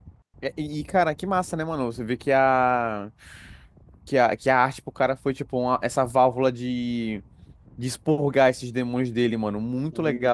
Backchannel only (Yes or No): Yes